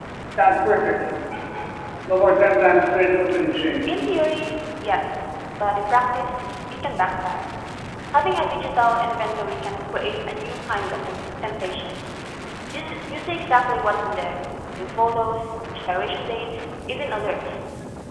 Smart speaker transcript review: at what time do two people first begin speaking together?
none

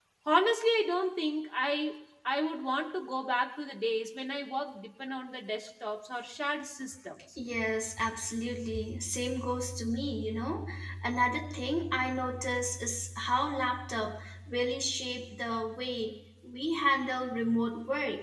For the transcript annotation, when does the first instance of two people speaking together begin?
none

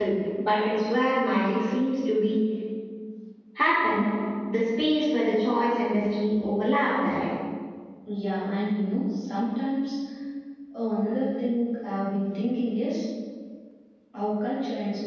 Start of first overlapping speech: none

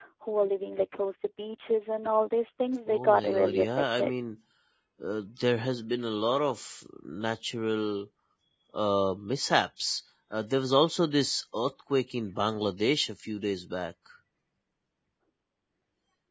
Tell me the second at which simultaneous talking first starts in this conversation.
2.9 s

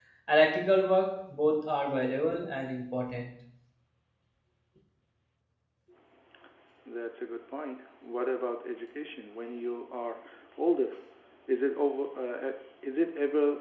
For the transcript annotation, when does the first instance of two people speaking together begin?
none

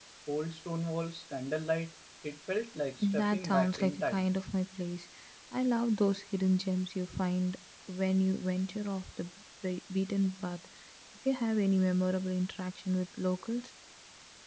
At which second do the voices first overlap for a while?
3.0 s

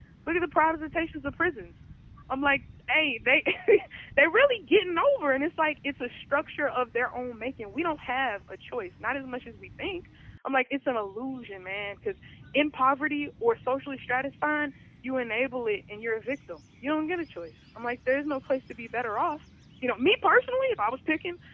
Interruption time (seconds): none

